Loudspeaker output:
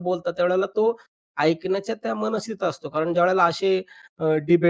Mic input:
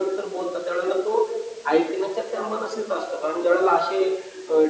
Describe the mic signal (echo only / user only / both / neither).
echo only